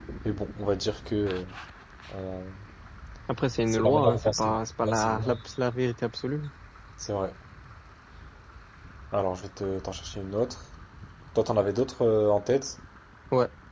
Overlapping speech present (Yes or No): Yes